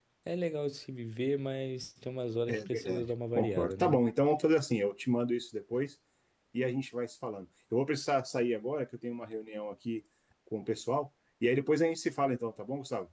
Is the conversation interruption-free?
No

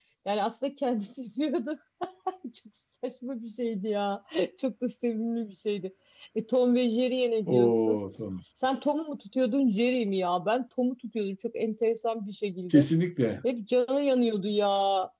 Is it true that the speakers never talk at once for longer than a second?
Yes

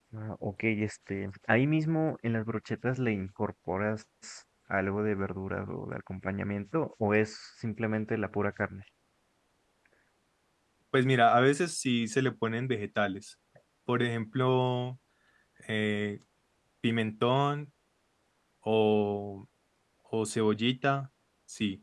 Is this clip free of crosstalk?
Yes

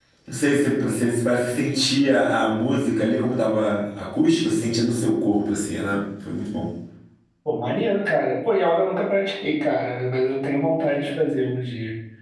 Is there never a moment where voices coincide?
Yes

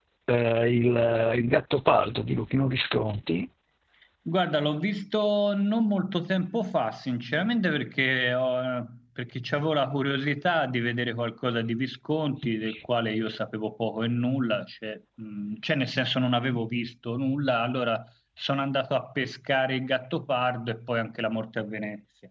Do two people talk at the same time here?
No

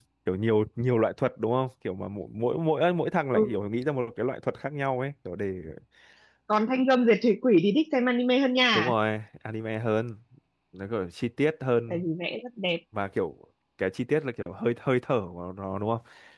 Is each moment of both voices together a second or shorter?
Yes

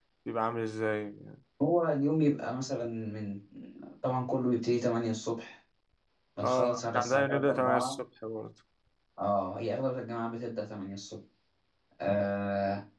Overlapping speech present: Yes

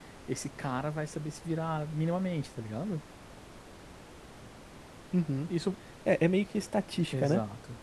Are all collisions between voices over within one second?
Yes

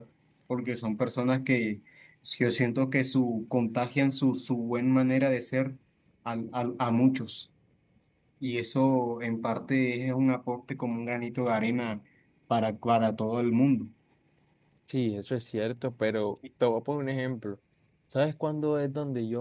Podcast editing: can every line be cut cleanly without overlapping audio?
Yes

